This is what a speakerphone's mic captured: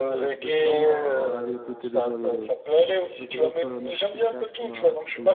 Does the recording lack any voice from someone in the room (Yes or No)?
No